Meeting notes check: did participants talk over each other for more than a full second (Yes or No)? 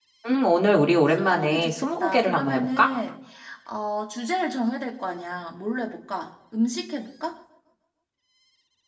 Yes